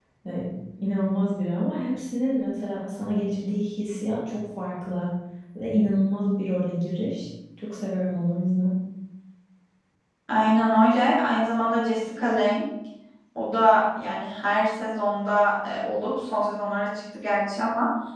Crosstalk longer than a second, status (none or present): none